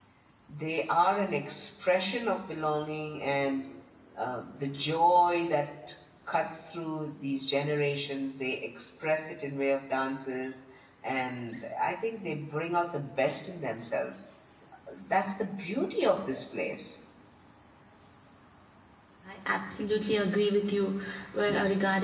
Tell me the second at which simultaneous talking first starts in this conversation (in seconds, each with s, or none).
none